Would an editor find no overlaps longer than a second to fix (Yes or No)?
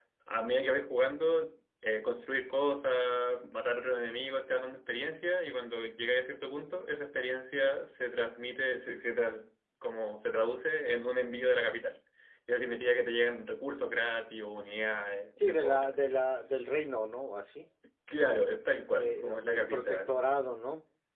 No